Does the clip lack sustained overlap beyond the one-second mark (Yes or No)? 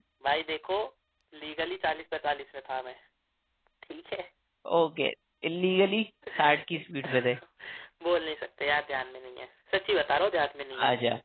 Yes